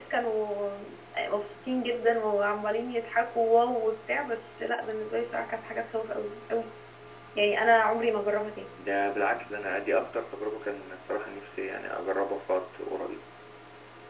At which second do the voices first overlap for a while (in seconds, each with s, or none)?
none